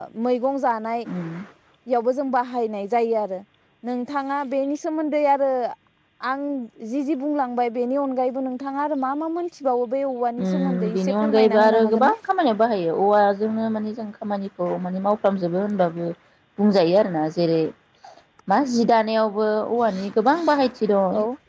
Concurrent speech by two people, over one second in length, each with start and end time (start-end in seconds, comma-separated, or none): 10.5-12.1